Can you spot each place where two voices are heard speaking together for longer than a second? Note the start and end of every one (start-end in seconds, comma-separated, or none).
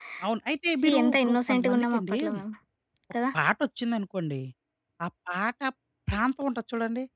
0.7-2.2